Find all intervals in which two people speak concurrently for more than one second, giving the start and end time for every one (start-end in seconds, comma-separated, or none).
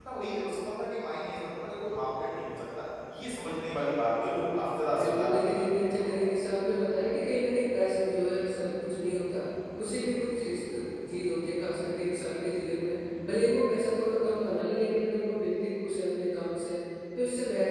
5.0-6.3